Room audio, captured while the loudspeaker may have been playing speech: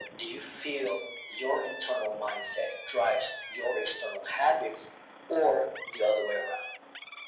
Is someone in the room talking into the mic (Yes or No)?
No